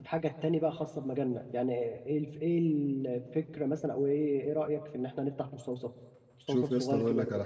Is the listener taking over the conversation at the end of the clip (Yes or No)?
Yes